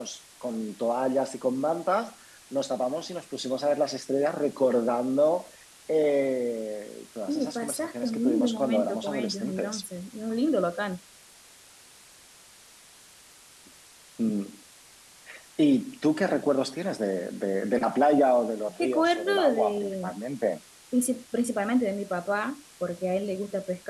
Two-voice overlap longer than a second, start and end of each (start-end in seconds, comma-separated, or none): 7.3-9.8, 18.8-20.1